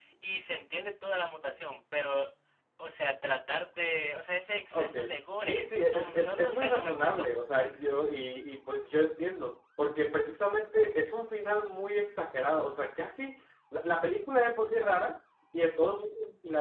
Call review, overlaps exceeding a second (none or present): present